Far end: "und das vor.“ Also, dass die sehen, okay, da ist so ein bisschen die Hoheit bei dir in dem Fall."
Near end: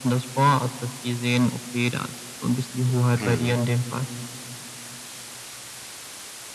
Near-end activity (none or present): present